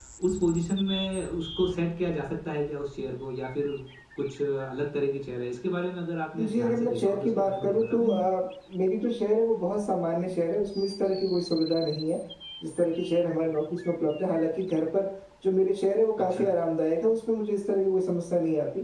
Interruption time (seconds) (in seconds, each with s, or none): 6.4 s